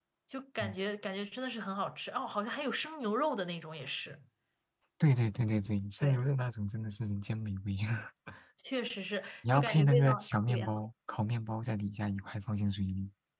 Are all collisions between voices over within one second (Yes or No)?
No